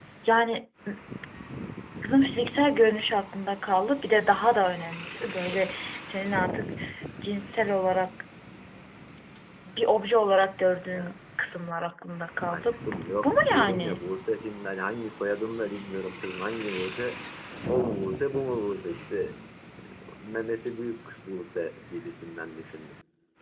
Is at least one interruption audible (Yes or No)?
Yes